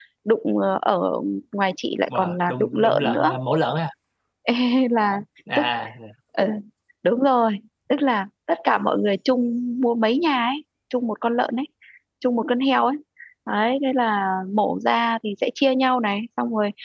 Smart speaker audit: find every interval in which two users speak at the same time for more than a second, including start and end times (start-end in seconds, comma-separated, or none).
2.1-3.3